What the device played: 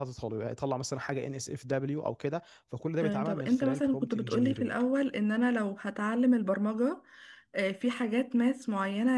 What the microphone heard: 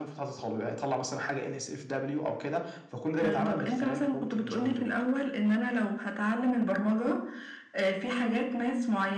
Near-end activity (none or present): none